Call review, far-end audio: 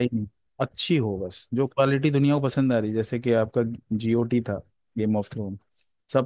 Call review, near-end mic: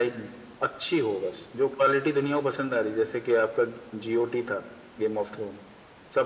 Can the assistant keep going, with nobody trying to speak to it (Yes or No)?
Yes